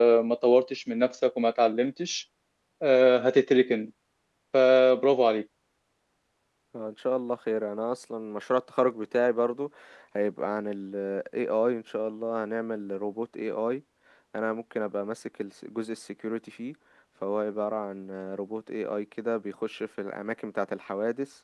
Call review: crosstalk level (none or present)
none